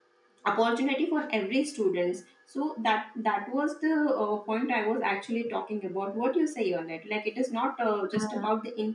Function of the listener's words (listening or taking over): listening